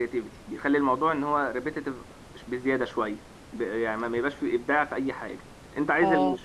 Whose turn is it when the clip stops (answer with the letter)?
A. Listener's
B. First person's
B